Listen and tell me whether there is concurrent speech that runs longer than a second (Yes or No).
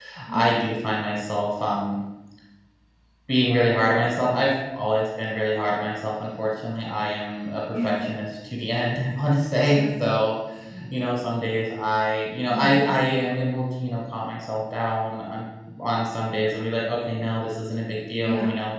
No